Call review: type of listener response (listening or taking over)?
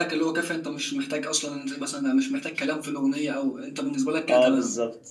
taking over